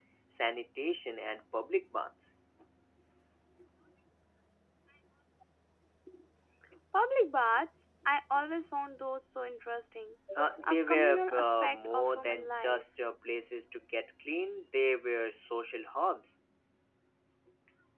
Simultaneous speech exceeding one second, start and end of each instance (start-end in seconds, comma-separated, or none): 10.6-12.8